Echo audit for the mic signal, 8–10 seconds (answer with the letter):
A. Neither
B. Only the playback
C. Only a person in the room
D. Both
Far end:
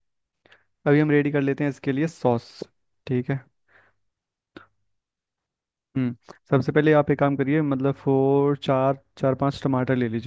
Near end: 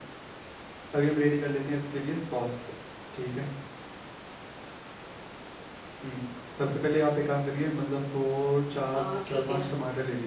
D